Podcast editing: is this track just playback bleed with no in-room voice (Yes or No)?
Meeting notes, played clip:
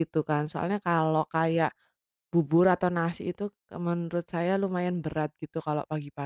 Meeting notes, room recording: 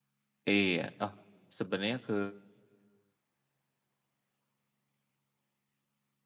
No